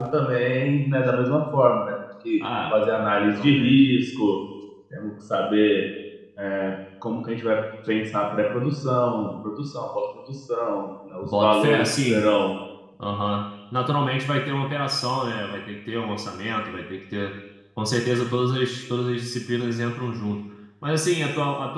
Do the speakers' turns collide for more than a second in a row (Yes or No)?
Yes